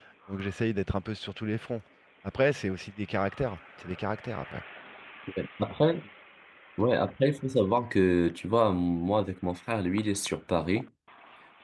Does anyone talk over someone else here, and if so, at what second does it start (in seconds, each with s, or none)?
none